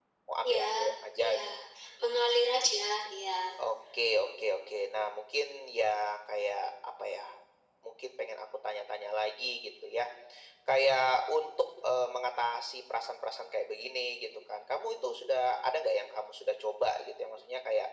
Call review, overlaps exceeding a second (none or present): none